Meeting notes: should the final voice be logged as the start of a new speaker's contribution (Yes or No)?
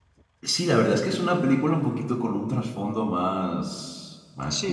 Yes